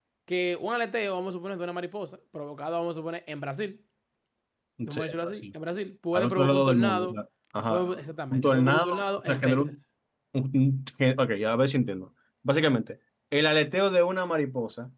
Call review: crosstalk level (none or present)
present